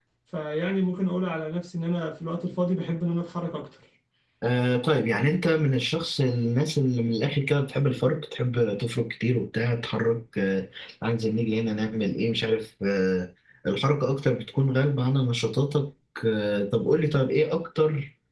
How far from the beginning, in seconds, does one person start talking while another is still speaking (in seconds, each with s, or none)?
none